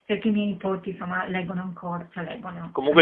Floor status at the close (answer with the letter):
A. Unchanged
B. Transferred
B